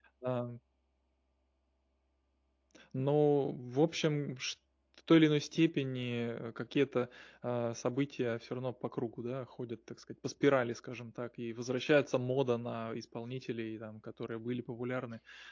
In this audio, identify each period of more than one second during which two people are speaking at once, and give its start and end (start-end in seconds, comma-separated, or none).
none